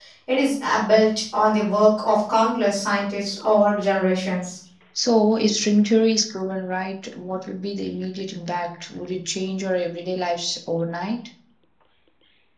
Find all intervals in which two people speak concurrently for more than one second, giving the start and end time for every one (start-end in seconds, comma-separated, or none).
none